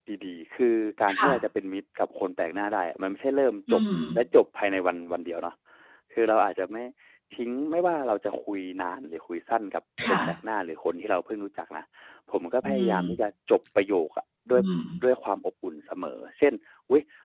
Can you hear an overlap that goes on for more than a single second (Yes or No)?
No